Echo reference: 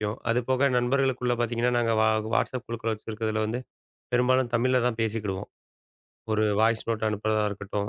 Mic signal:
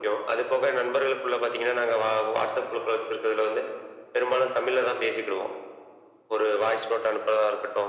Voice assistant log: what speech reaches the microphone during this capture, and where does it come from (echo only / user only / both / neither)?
echo only